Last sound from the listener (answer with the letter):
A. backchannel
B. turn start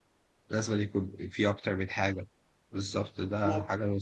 A